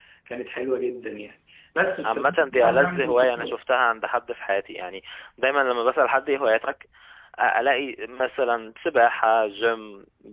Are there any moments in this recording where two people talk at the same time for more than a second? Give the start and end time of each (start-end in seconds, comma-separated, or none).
2.0-3.6